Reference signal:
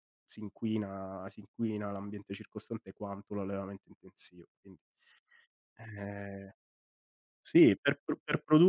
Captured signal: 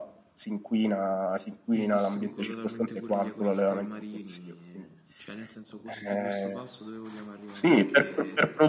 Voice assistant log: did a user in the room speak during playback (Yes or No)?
Yes